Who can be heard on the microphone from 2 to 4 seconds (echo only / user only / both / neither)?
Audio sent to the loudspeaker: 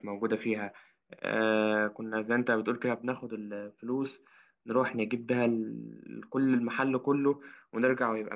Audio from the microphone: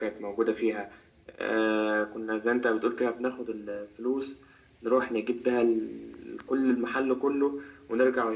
echo only